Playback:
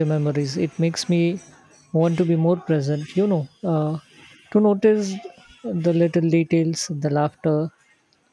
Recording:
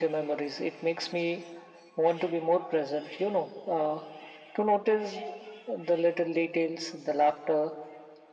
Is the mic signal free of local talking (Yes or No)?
Yes